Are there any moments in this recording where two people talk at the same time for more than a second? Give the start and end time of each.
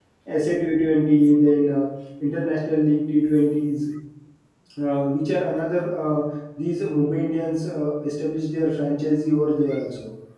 none

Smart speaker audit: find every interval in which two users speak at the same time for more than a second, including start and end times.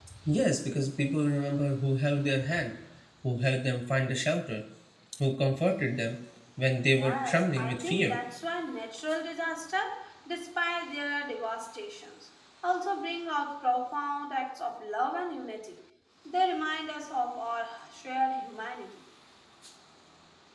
7.0-8.2

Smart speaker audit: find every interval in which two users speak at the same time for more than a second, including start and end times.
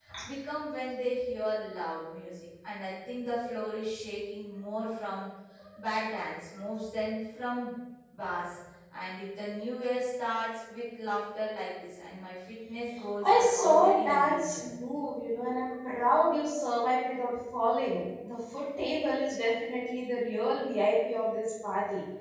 13.2-14.6

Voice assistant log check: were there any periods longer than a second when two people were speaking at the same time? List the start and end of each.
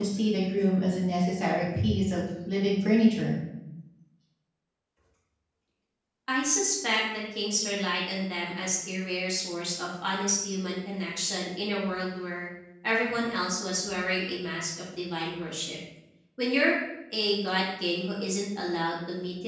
none

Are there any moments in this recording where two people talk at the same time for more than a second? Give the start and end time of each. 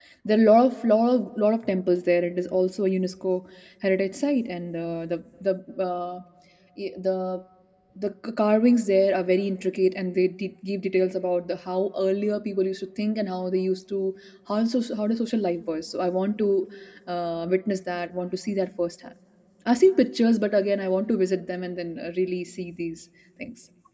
none

